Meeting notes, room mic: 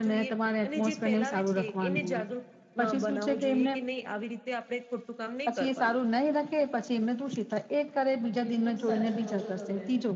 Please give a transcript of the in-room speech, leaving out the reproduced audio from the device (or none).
બિલકુલ સાચું કહ છો તમે.